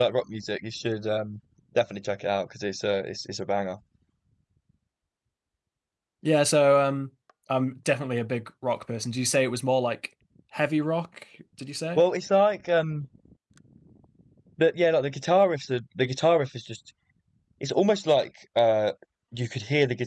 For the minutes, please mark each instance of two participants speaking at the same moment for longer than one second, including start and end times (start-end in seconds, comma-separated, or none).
none